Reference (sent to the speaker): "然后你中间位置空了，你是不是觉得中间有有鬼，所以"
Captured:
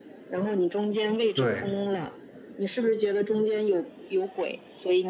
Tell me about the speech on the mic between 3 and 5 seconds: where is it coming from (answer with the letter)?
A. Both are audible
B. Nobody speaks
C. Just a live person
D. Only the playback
D